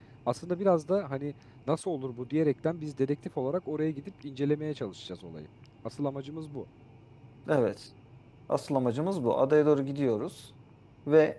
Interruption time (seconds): none

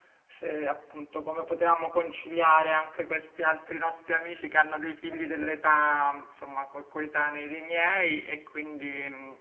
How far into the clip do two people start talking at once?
none

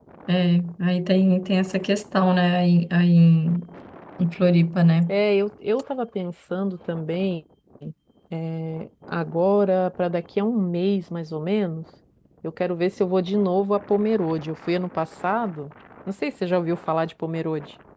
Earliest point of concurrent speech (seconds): none

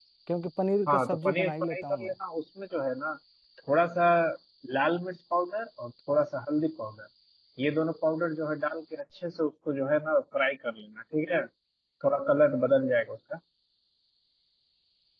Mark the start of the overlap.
1 s

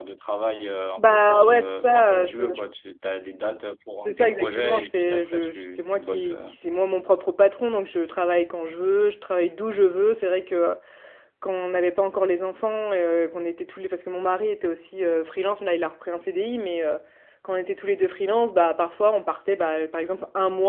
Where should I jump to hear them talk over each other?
1 s

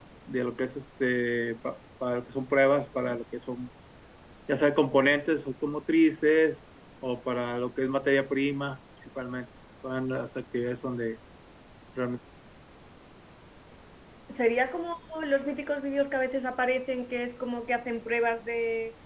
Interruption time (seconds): none

